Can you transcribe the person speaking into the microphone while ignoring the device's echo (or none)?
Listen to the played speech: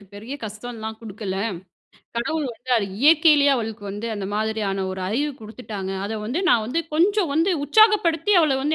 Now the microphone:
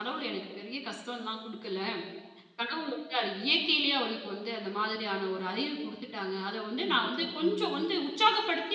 கண்டிப்பா. ம்.